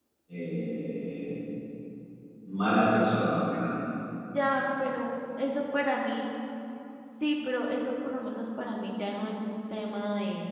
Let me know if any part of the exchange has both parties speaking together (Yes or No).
No